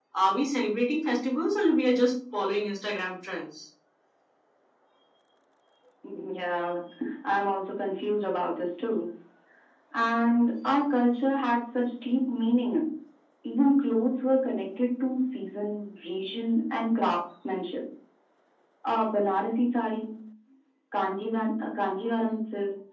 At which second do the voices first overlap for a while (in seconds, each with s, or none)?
none